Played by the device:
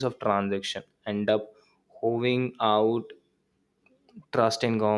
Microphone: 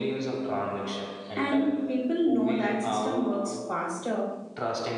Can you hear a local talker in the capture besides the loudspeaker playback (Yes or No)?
Yes